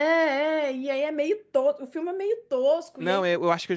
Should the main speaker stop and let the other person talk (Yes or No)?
Yes